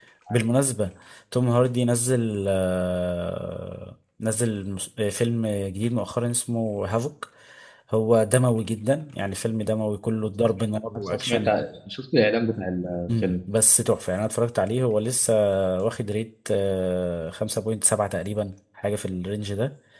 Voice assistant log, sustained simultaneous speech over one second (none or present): none